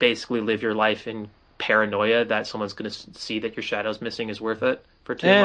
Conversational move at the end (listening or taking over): taking over